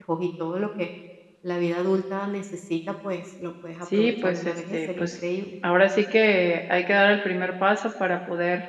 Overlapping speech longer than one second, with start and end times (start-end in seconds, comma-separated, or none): 3.9-5.2